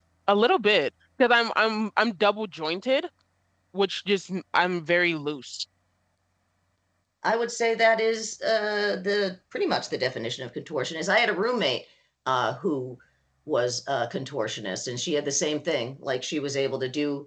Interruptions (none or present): none